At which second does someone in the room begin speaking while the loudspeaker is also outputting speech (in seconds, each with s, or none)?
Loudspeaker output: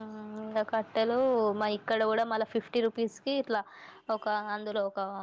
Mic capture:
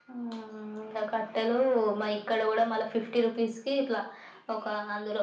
none